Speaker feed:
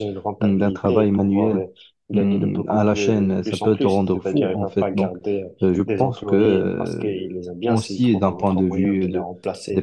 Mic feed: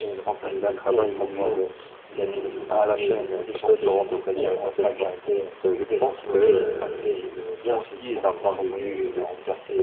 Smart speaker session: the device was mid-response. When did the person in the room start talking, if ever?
none

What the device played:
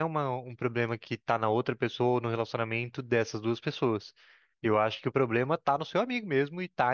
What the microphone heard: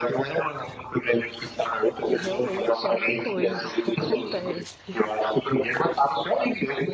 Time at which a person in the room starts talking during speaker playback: 2 s

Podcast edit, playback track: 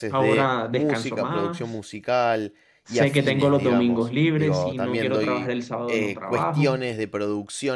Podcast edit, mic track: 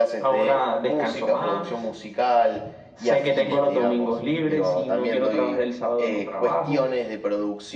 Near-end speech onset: none

